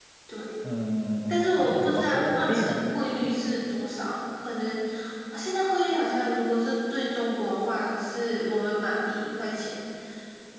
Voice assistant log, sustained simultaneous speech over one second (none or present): present